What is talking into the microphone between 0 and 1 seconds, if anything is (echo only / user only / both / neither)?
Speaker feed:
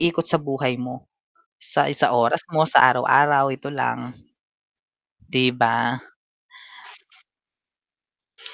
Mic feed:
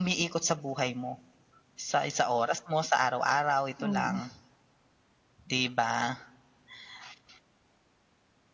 echo only